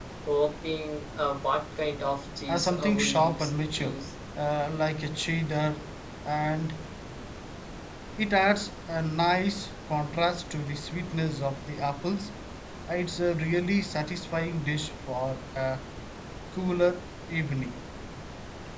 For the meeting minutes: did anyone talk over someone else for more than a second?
Yes, from 2.5 s

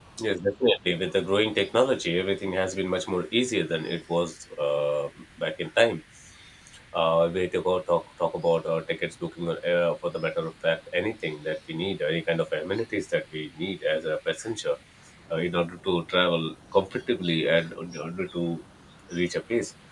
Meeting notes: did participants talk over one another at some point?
No

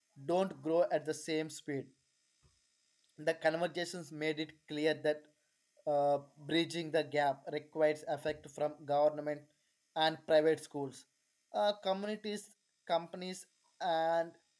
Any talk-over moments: No

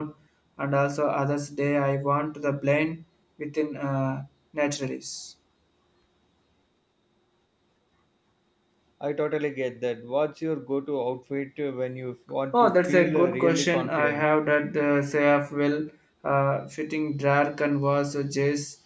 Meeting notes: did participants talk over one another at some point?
Yes, from 12.5 s

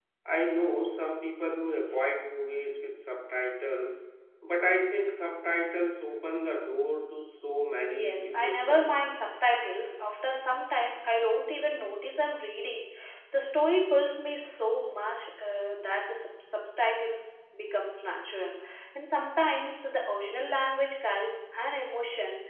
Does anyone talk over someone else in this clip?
Yes, from 7.9 s

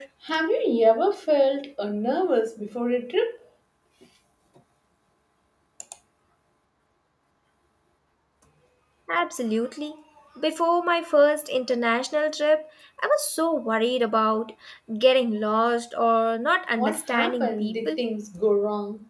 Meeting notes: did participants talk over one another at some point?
Yes, from 16.8 s

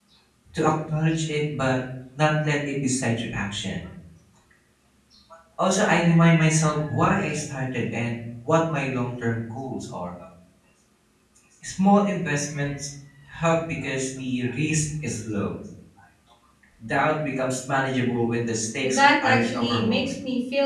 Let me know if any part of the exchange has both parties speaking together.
Yes, from 18.8 s

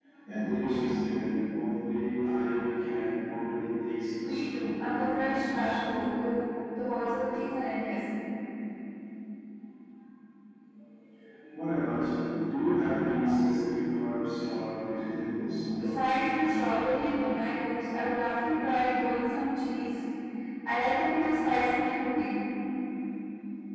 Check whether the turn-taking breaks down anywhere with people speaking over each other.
Yes, from 4.2 s

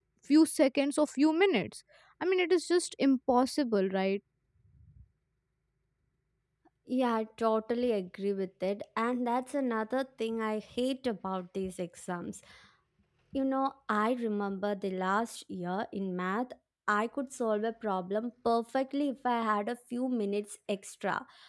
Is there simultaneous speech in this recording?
No

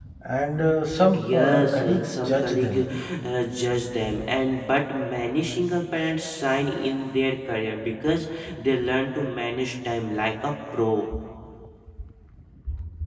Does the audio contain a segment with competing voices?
Yes, from 1.1 s

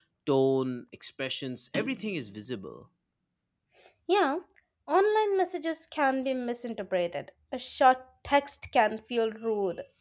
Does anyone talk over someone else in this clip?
No

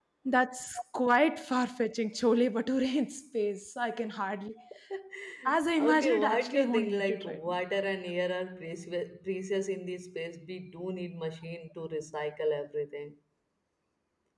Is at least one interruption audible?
Yes, from 5.8 s

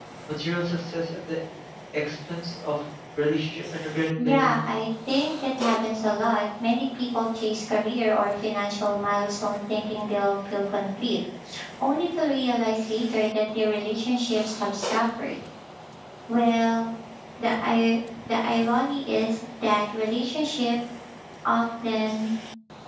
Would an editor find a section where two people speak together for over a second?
No

